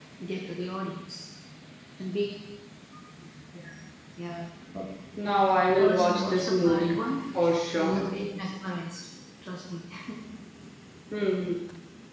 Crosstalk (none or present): present